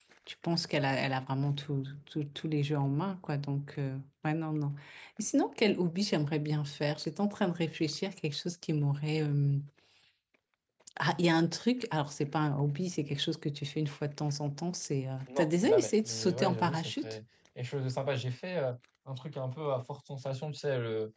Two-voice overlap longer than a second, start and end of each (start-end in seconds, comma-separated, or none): 15.4-17.1